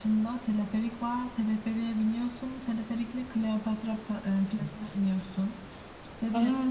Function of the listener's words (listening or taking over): listening